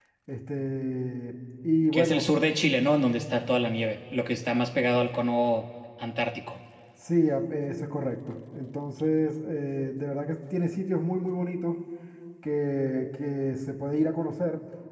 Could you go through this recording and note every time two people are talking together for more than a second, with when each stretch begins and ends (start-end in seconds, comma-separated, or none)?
none